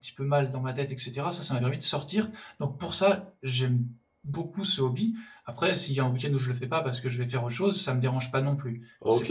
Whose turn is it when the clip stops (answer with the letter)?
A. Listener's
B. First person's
A